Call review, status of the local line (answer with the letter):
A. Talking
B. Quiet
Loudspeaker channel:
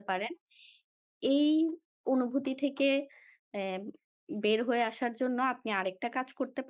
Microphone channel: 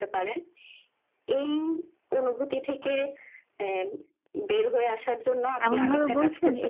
A